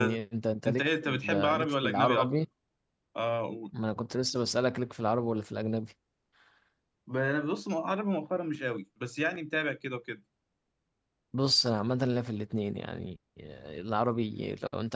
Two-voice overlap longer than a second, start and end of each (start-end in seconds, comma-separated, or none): 0.7-2.3